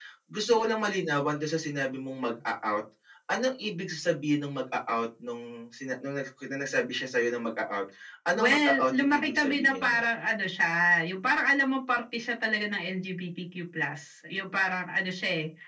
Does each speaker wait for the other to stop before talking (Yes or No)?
No